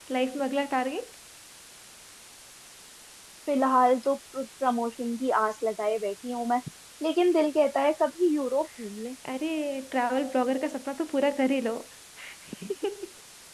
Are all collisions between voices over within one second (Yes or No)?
Yes